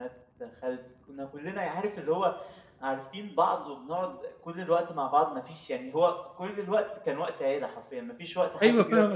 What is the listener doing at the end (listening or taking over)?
taking over